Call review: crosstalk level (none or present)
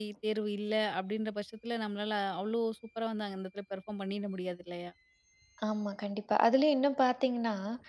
none